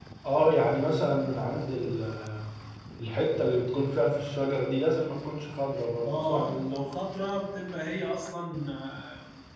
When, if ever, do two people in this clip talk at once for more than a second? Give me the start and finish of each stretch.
none

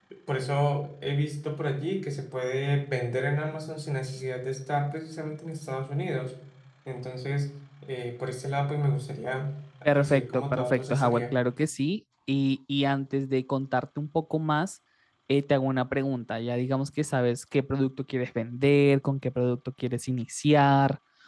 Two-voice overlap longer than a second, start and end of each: 9.9-11.2

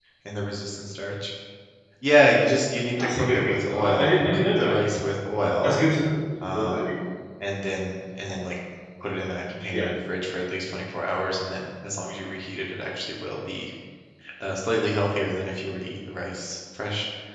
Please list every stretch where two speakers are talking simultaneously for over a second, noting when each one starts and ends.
3.0-4.8

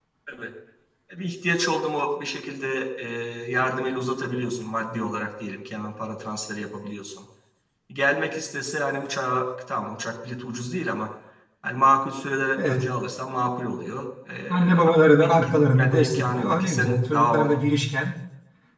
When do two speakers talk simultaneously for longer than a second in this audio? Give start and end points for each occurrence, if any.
14.5-17.5

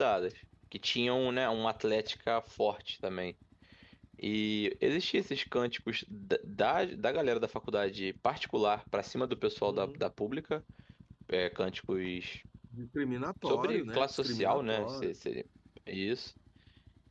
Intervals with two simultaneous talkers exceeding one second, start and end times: 13.4-15.1

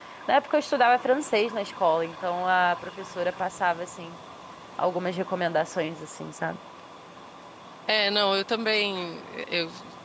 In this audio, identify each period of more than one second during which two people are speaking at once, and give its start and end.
none

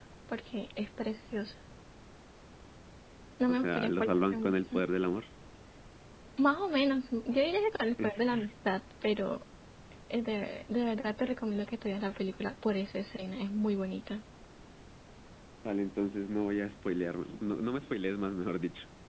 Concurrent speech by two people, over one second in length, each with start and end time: 3.5-4.8

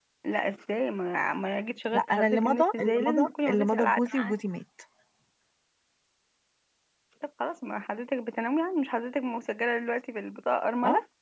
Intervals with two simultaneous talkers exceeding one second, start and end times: 1.9-4.3

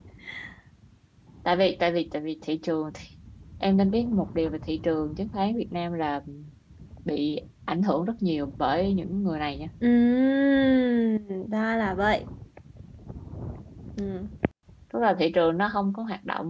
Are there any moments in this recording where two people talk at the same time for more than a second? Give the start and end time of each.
none

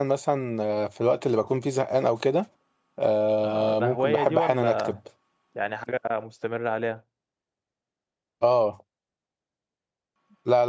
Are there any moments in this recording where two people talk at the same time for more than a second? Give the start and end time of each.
3.4-5.0

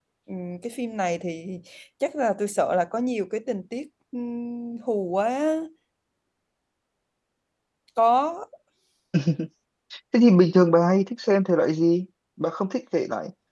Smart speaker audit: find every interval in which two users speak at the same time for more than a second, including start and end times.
none

